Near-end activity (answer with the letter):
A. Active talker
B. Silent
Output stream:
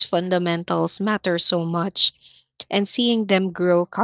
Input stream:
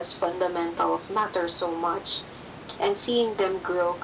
B